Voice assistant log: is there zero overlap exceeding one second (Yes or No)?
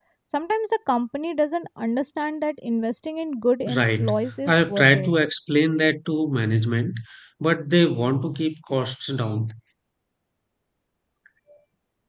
No